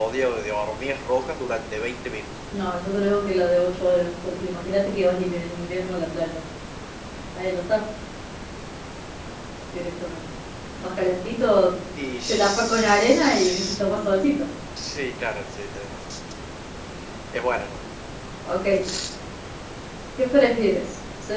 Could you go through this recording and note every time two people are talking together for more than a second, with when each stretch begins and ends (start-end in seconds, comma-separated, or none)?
12.3-14.4